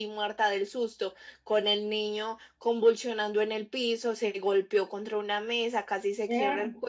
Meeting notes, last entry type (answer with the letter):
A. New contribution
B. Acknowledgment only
B